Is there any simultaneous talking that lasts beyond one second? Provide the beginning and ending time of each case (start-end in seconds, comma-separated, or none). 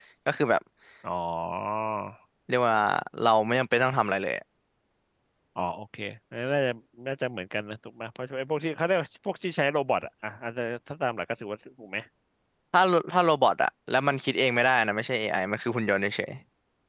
none